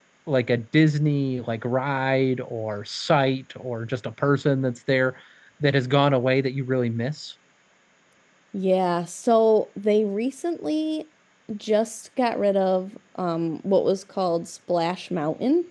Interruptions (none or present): none